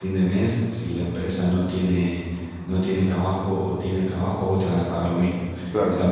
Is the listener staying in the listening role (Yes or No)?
Yes